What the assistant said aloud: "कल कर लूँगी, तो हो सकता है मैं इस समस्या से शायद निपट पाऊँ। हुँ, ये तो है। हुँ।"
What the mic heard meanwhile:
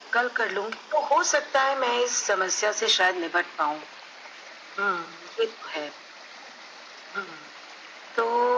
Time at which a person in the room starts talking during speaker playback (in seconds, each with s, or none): none